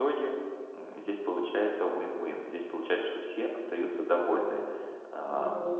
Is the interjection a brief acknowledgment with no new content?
Yes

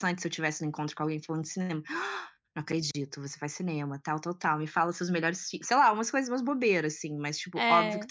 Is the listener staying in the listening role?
Yes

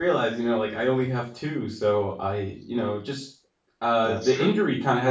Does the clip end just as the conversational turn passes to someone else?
No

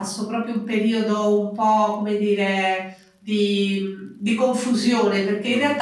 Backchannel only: Yes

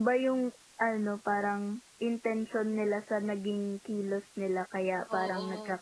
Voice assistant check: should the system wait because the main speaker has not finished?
Yes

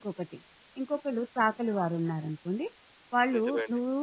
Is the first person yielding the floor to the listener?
No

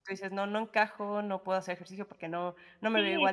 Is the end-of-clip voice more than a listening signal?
Yes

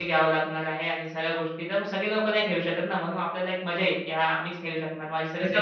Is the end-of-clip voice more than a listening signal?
Yes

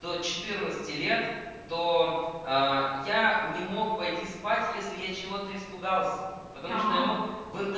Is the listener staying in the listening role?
Yes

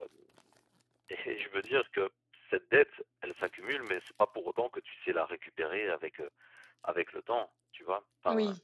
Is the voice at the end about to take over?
Yes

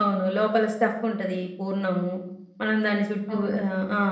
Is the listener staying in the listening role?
Yes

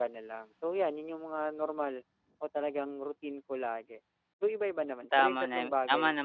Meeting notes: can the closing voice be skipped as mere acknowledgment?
No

